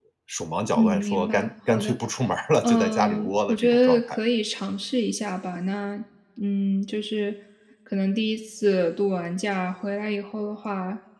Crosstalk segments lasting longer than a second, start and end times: 0.8-2.0, 2.6-4.2

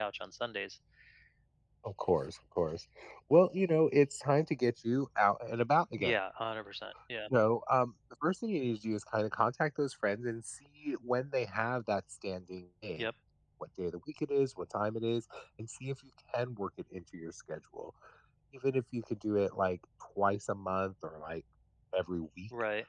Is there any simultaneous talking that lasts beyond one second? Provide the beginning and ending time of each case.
none

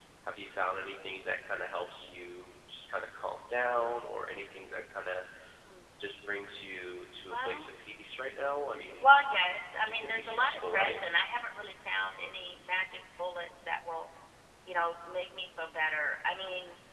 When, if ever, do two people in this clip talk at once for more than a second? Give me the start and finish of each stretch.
9.8-11.0

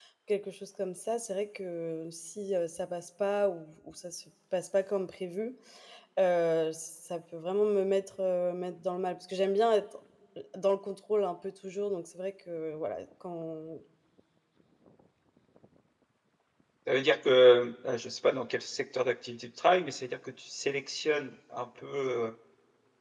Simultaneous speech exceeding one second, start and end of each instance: none

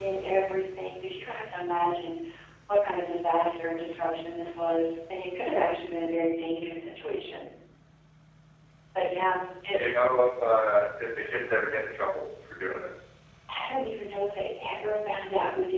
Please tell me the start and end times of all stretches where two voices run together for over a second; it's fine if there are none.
none

